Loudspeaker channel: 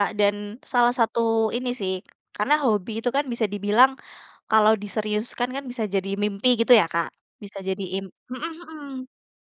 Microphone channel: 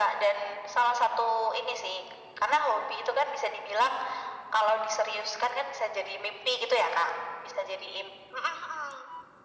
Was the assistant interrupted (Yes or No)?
No